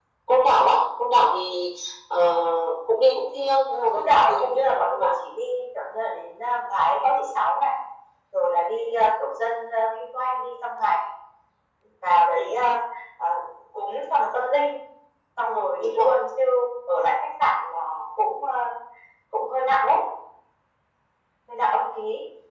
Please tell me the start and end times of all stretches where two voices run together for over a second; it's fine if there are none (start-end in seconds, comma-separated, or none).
3.7-5.1